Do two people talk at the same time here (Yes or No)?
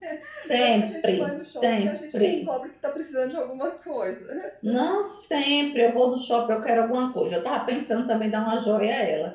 Yes